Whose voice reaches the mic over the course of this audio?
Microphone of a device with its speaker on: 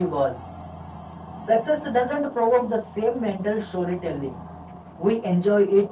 echo only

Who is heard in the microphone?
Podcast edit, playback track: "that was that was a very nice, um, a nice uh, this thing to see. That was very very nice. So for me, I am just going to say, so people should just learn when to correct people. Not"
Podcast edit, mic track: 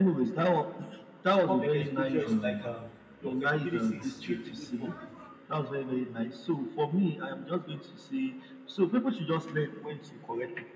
both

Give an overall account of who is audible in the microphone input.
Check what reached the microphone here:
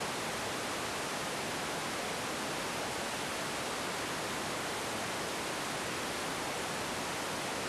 neither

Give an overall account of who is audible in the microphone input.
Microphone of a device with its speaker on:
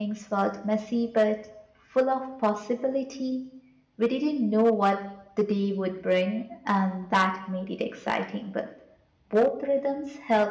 user only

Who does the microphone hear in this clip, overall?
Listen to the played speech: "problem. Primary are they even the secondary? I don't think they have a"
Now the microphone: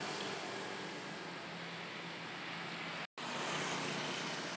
neither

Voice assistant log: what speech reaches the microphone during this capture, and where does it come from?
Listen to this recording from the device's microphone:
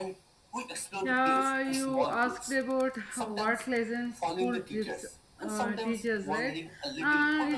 both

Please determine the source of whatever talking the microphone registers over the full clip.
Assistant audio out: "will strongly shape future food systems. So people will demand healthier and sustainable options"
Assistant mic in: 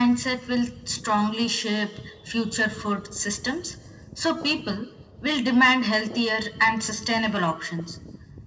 echo only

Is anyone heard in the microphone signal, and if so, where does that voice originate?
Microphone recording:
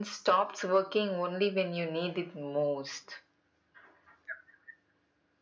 echo only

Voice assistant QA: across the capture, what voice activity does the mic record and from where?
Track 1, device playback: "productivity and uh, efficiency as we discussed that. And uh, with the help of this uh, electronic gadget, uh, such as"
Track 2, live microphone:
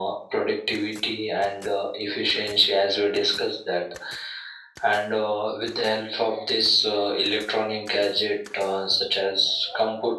echo only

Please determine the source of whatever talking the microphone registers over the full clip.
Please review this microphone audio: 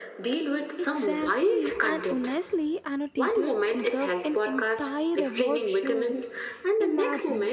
both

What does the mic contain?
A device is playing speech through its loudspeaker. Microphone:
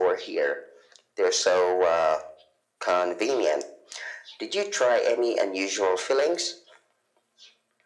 echo only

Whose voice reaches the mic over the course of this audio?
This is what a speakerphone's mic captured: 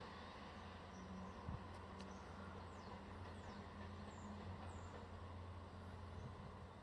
neither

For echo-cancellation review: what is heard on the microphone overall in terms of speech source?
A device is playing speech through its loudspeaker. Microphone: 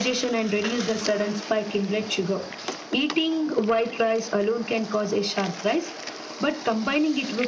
echo only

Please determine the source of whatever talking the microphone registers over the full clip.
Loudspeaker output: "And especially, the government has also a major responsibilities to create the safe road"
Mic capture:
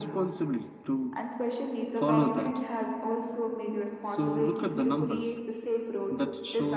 both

